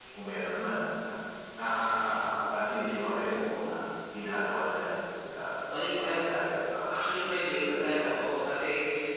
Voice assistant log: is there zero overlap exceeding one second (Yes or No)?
Yes